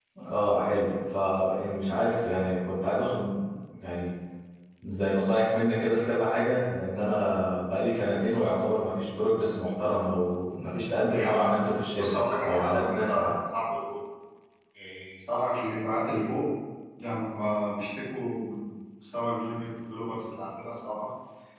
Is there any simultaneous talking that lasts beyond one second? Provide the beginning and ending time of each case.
11.1-13.3

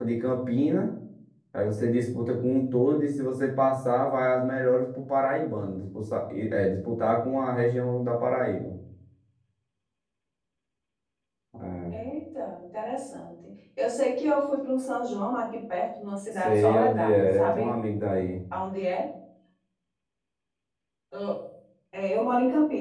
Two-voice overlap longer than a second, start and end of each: 16.4-17.7

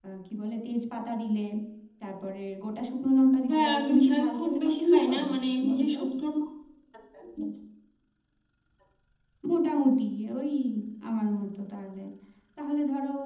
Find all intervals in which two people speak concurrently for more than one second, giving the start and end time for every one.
3.5-5.2

